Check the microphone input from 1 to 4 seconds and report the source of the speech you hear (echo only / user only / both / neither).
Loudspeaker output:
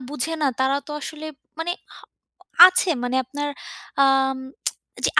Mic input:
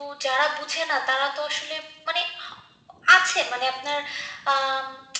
echo only